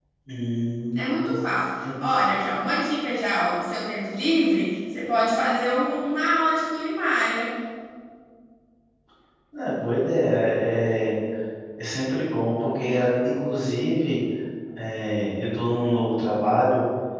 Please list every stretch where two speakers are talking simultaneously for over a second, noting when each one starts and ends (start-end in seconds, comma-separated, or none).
none